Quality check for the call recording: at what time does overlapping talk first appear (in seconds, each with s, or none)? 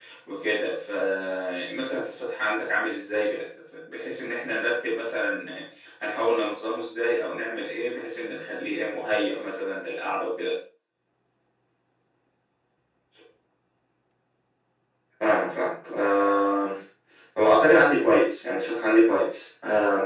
none